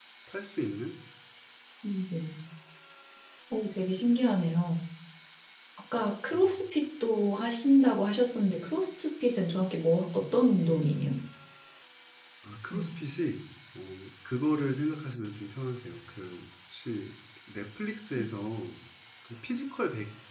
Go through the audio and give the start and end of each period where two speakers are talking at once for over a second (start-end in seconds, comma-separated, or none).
none